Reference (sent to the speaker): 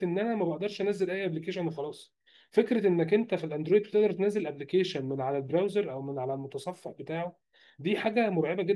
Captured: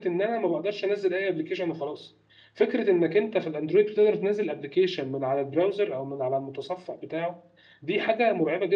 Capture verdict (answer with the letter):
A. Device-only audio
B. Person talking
A